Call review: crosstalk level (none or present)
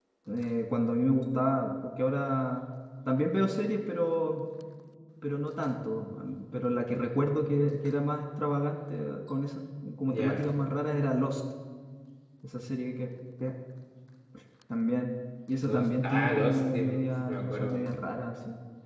present